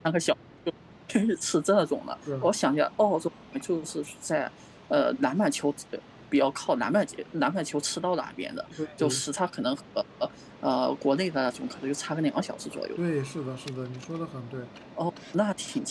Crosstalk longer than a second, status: none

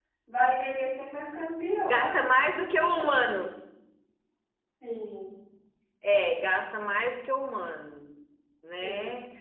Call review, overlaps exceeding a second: none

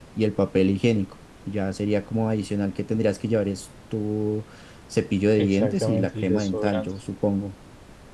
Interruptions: present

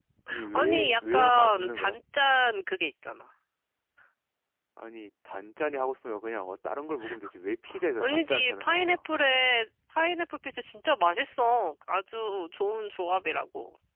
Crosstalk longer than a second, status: present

